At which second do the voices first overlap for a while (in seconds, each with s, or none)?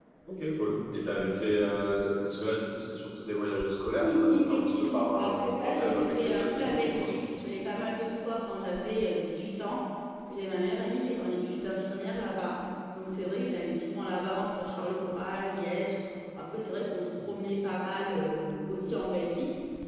4.0 s